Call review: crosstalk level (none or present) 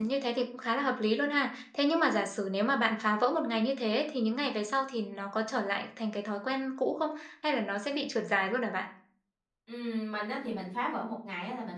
none